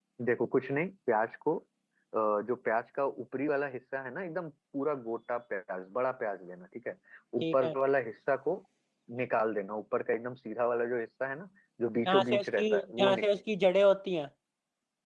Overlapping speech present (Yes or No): Yes